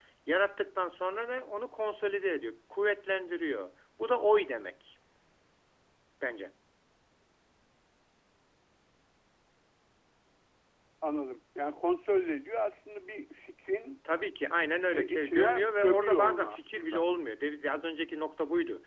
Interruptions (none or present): present